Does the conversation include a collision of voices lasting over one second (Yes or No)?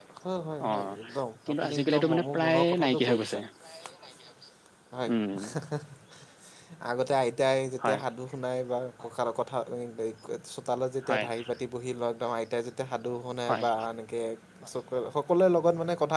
Yes